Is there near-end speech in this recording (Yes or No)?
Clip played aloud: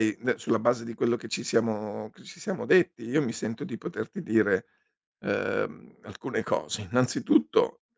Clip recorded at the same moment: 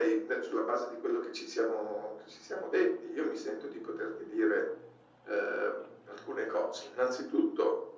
No